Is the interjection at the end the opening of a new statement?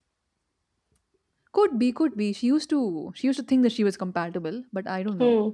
Yes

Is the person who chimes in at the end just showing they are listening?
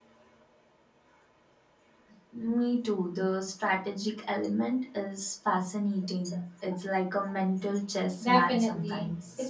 No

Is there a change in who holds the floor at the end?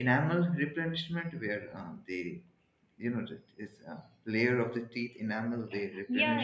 Yes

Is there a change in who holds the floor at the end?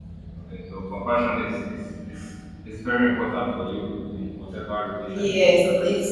Yes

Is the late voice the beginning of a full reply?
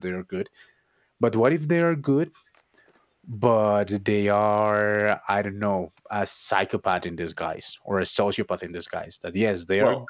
No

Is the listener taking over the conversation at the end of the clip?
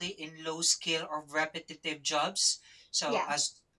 No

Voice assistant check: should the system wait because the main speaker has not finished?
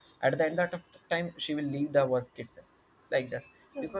Yes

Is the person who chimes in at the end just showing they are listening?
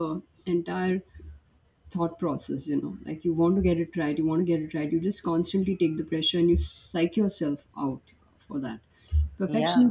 Yes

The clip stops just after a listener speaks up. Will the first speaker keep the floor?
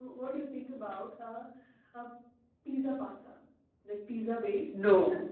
Yes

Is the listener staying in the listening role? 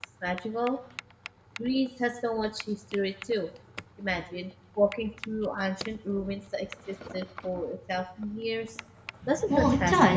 No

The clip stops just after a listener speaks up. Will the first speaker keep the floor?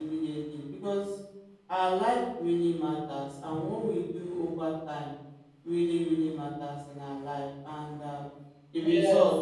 Yes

